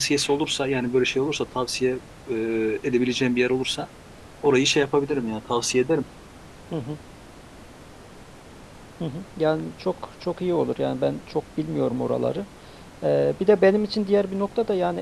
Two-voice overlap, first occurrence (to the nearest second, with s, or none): none